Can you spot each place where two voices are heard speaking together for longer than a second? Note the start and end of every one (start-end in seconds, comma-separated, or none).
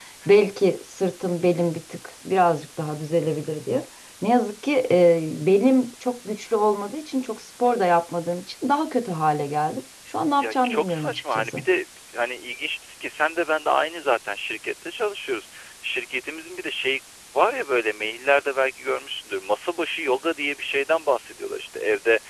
10.4-11.6